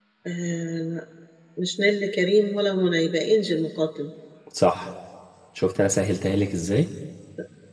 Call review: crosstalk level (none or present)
none